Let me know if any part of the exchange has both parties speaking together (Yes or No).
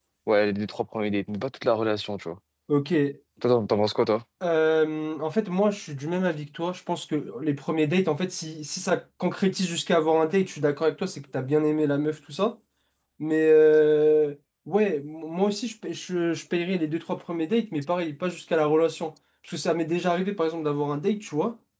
No